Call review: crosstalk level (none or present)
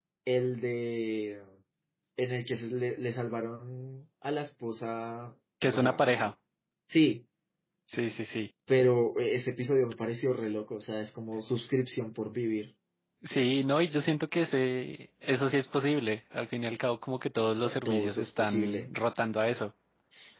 present